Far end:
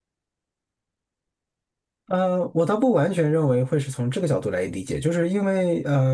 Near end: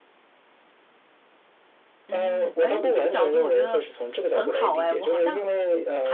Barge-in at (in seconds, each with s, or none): 2.1 s